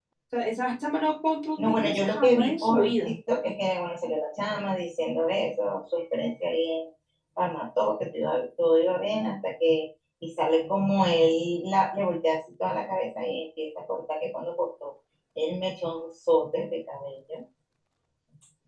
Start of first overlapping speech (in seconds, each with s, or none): 1.6 s